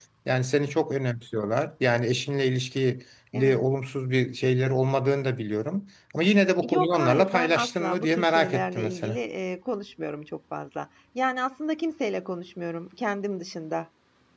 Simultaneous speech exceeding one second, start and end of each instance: 6.7-9.2

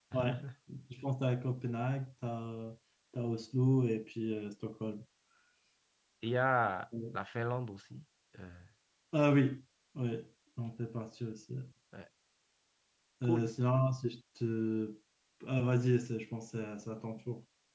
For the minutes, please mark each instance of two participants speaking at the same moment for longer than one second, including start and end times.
none

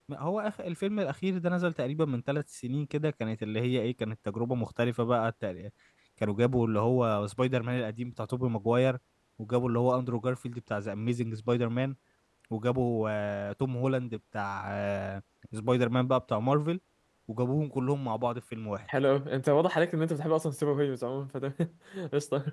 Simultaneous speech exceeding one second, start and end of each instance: none

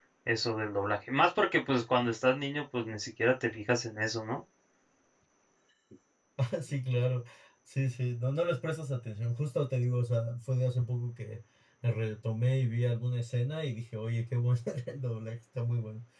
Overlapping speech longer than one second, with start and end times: none

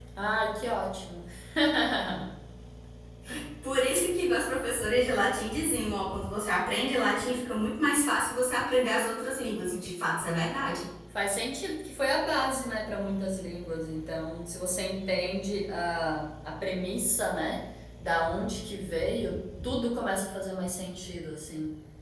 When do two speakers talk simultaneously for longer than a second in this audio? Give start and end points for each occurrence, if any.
none

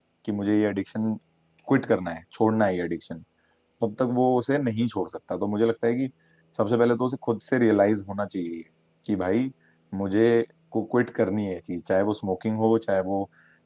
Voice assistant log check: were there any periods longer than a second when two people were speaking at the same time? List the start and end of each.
none

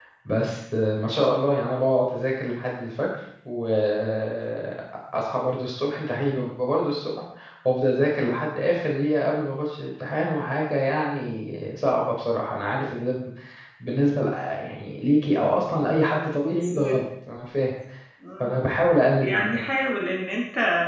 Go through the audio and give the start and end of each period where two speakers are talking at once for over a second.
none

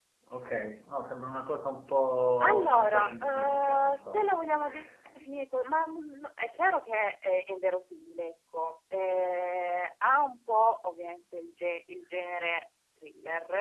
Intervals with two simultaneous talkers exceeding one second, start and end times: 2.4-4.3

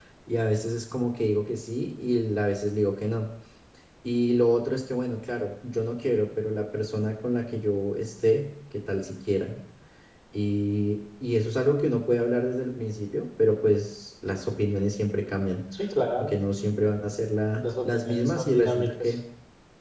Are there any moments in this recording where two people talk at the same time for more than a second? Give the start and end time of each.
17.8-19.2

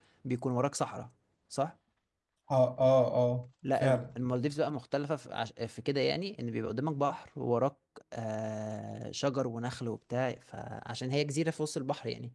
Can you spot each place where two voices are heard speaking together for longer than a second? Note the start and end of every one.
none

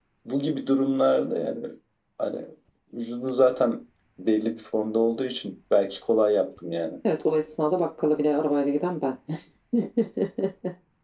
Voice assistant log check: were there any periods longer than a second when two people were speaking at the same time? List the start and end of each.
none

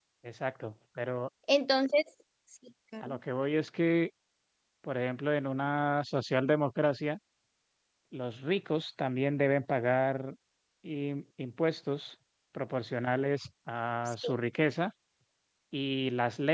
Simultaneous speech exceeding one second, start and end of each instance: none

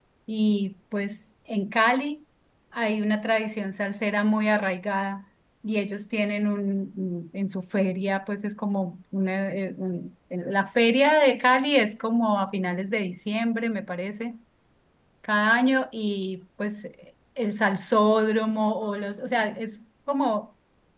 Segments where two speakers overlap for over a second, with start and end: none

